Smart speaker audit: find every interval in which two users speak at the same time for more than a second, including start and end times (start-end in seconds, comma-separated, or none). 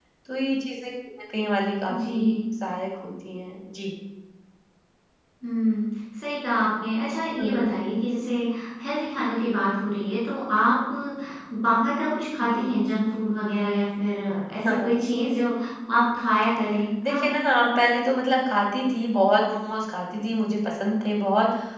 none